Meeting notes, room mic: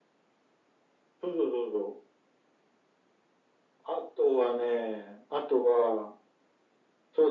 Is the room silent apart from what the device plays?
Yes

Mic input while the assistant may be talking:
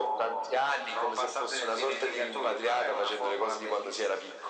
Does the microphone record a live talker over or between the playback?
No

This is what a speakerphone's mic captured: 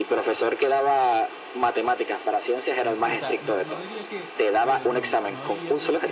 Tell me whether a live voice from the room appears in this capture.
Yes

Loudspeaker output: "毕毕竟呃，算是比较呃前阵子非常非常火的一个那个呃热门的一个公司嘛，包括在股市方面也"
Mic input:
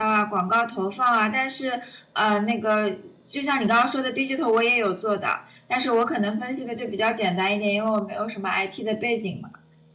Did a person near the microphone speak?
Yes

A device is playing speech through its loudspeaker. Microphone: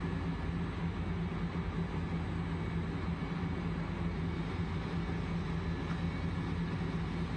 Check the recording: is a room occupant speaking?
No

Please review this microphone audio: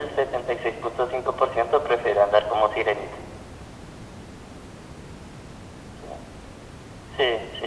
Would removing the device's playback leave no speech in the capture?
Yes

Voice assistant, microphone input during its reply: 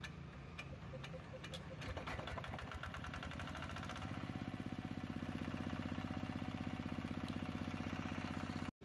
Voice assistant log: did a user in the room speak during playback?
No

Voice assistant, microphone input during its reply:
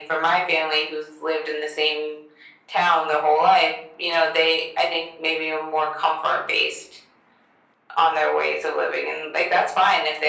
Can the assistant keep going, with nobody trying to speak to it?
Yes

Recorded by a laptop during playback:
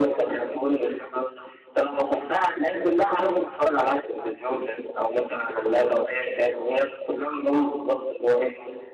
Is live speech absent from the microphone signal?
Yes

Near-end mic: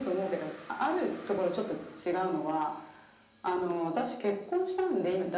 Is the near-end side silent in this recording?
Yes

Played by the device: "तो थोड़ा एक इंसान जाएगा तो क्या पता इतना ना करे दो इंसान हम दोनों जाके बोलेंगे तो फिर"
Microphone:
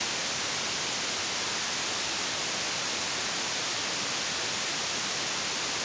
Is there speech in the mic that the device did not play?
No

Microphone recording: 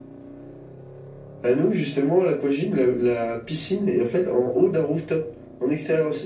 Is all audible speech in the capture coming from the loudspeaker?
Yes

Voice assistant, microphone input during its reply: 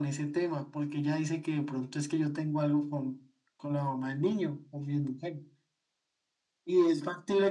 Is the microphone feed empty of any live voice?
Yes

